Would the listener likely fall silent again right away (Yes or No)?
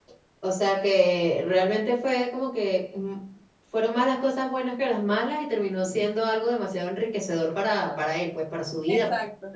No